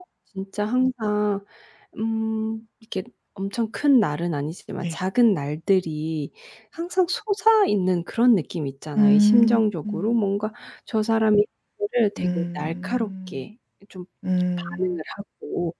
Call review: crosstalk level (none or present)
present